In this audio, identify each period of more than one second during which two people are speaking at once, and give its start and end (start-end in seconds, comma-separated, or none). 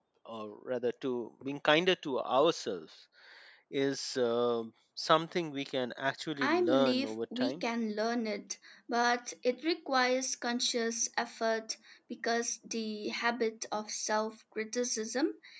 6.4-7.6